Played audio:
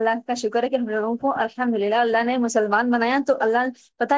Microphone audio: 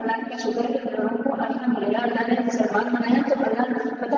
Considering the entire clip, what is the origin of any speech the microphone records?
echo only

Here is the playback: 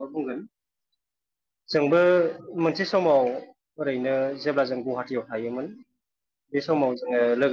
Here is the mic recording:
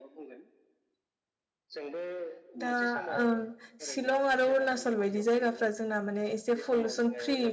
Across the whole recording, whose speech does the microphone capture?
both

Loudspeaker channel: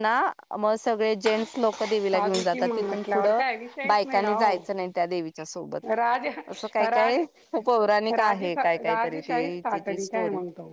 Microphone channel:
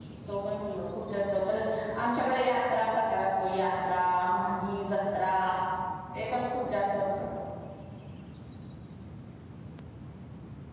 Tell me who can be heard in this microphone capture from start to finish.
user only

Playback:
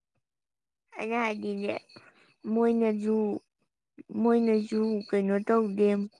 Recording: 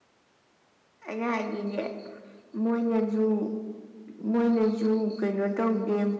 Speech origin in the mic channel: echo only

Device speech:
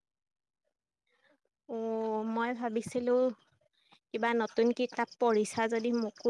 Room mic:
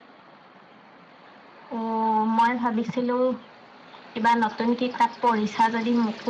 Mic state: echo only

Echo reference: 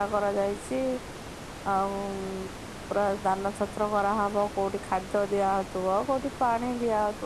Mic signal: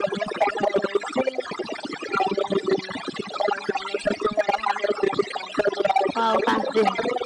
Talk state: both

